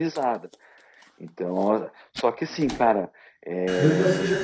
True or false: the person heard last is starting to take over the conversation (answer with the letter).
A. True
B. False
A